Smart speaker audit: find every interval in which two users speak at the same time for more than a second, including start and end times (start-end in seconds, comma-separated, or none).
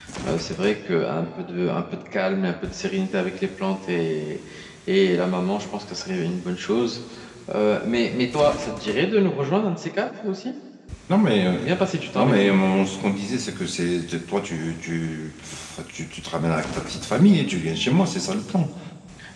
none